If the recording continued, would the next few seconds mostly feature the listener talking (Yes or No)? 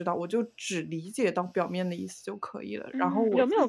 Yes